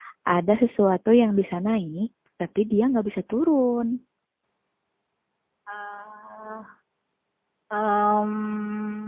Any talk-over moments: No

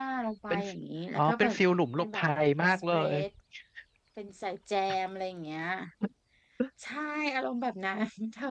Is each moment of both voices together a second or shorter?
Yes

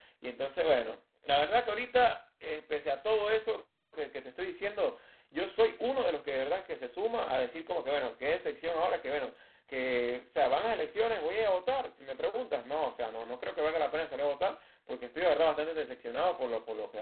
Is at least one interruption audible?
No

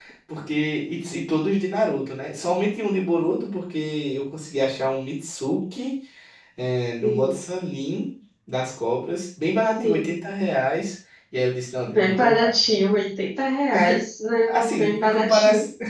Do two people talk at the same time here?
Yes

